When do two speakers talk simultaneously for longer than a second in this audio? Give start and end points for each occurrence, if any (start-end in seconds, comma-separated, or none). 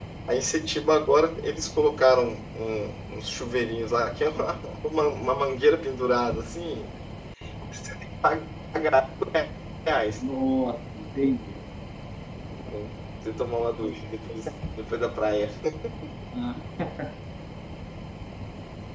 none